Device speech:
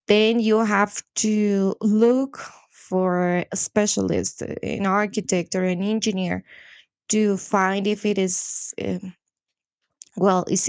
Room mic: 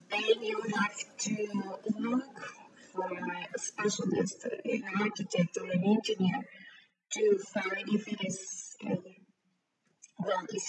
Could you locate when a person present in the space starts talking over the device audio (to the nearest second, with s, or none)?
none